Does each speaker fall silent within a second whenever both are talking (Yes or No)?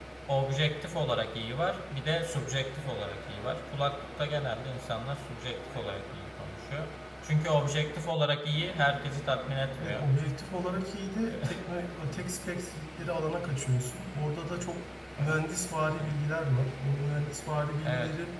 Yes